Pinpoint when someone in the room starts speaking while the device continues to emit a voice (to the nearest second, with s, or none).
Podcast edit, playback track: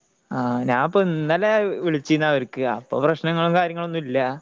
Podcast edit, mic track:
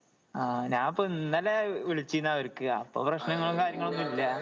3 s